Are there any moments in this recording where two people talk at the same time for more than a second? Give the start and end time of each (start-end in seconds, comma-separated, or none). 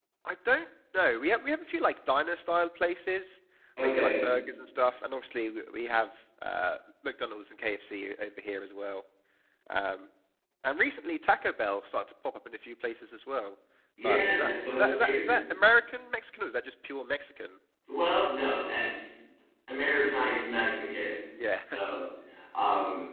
14.0-15.4